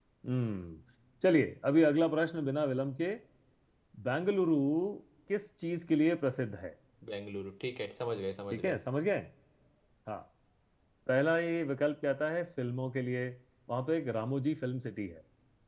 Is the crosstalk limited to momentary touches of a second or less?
Yes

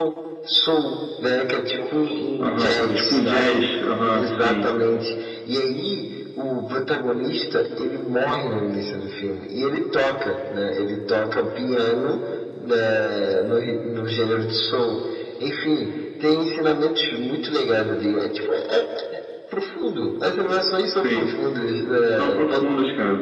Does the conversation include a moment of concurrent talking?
Yes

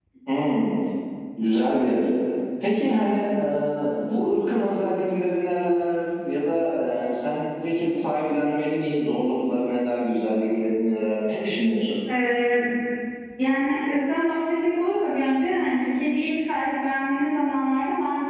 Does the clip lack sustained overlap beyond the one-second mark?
Yes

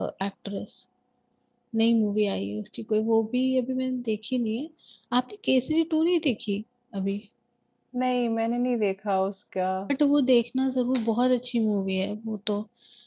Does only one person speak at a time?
Yes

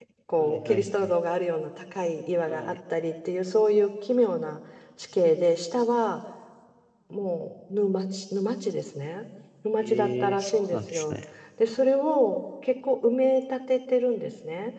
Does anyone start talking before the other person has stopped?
Yes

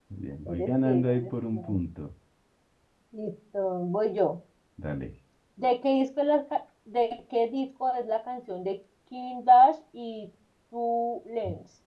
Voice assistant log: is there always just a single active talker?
No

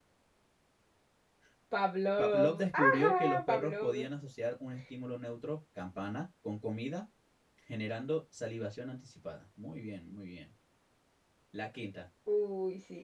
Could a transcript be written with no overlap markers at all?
No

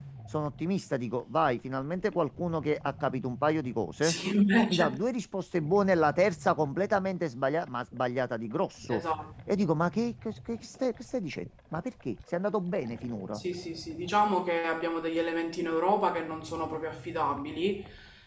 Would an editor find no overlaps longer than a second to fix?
Yes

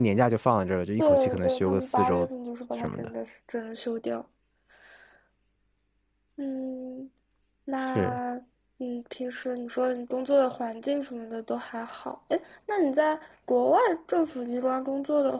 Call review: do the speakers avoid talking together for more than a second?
No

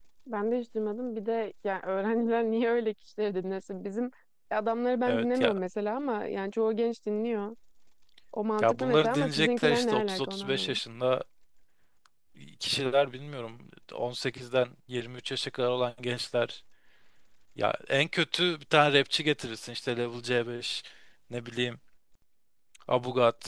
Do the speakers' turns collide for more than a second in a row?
Yes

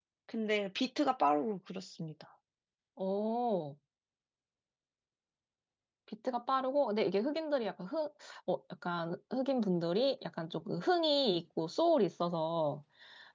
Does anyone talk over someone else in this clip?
No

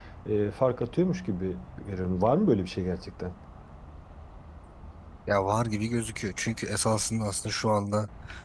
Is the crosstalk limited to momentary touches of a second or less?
Yes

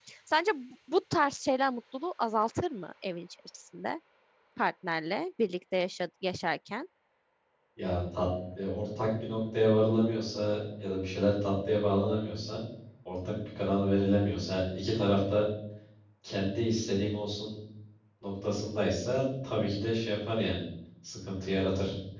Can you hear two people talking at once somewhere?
No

